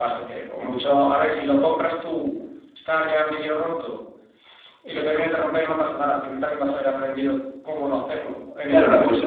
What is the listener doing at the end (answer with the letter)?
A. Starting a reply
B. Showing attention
A